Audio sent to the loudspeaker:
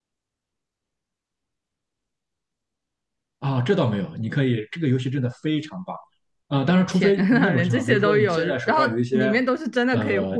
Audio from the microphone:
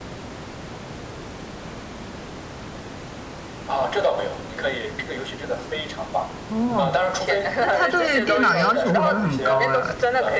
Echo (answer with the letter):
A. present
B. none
A